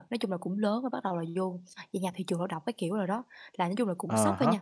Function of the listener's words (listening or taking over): listening